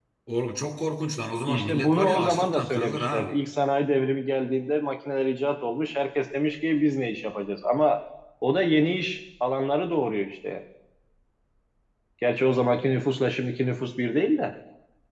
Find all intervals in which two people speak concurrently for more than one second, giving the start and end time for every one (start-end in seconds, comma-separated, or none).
1.5-3.3